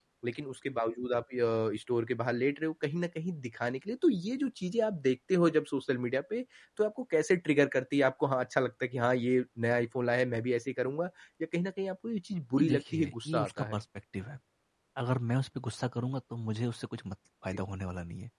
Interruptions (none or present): present